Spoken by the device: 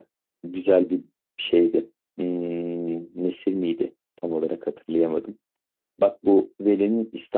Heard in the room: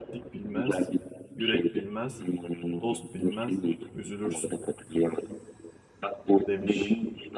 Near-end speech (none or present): present